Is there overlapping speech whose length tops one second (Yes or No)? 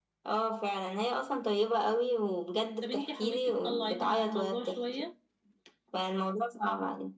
Yes